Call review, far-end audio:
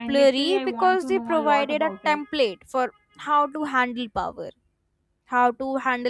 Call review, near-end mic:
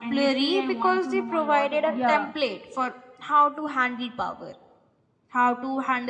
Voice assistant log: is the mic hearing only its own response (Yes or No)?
No